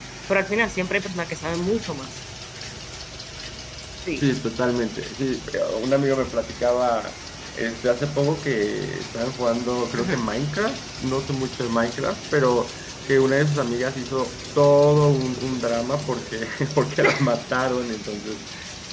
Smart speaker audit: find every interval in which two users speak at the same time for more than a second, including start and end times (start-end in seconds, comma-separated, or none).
none